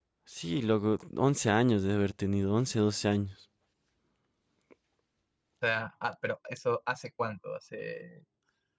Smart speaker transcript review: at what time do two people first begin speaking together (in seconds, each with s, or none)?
none